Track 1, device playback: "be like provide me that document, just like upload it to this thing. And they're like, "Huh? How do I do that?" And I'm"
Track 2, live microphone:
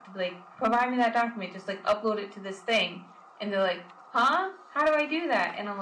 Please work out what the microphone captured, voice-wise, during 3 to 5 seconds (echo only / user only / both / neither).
echo only